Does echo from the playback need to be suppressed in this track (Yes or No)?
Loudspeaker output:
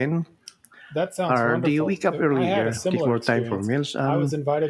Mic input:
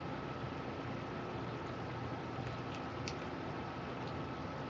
No